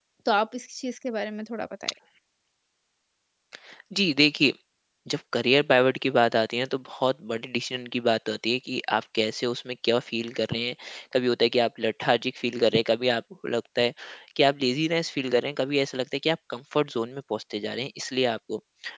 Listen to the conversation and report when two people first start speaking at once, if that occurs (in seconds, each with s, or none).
none